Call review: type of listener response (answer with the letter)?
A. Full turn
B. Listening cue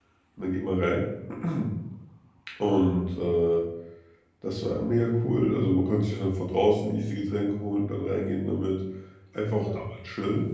B